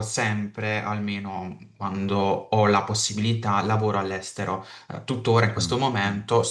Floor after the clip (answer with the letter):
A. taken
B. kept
B